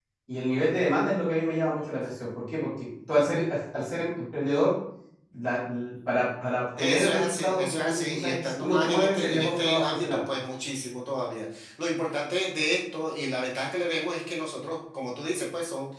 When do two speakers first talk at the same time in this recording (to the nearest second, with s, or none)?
7 s